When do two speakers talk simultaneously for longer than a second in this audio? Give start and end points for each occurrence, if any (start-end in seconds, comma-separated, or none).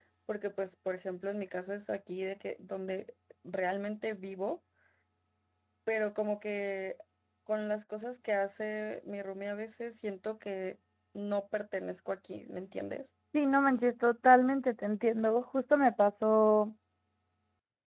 none